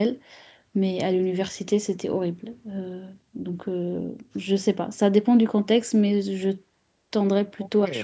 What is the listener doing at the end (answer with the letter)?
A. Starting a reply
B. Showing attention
A